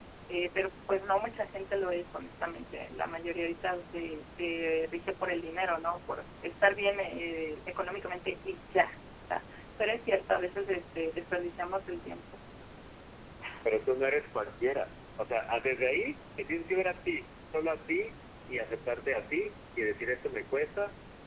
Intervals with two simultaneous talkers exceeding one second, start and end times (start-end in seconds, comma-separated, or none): none